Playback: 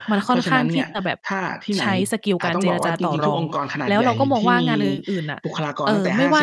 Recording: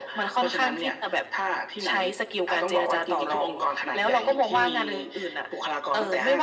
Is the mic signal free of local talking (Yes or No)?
Yes